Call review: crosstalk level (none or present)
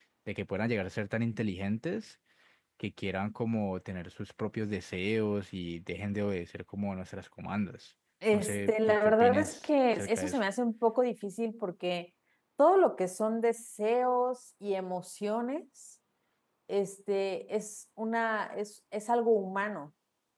present